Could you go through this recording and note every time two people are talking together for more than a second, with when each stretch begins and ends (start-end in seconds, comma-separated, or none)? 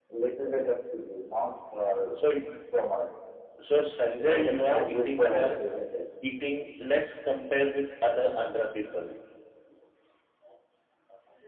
4.2-5.5